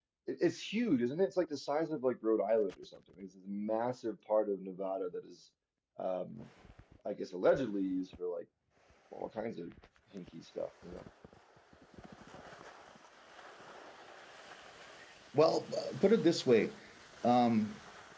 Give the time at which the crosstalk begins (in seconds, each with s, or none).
none